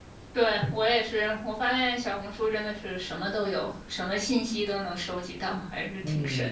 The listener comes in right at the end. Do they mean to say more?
Yes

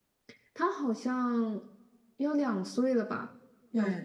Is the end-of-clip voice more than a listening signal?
Yes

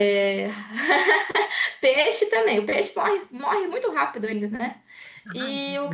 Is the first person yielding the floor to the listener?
No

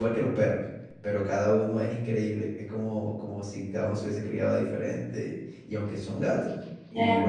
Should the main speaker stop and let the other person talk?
No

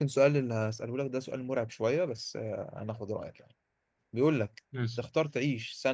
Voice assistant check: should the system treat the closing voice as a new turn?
No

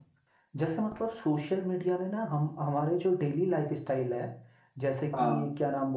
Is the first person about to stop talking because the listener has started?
No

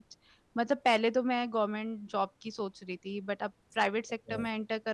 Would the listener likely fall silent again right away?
Yes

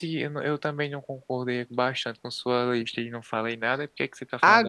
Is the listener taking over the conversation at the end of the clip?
Yes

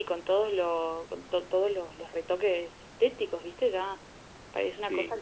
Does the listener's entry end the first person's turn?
No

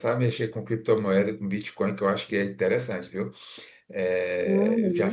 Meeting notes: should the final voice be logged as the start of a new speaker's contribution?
Yes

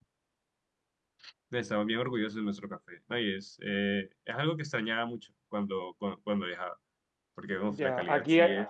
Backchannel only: No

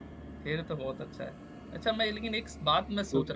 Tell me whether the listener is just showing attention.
Yes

